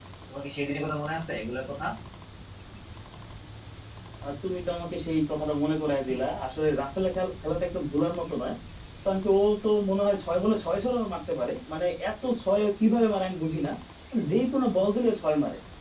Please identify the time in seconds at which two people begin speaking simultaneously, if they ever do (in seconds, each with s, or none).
none